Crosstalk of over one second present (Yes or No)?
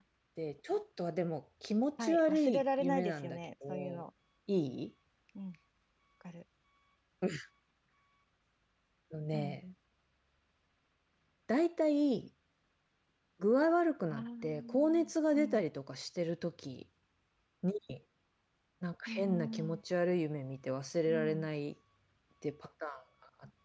Yes